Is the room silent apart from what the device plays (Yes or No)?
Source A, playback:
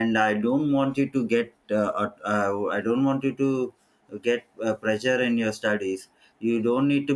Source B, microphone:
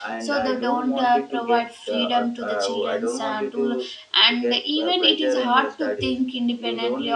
No